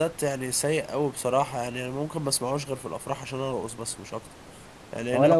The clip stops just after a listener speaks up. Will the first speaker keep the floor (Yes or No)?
No